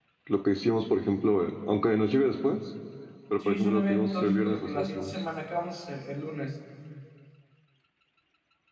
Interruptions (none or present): present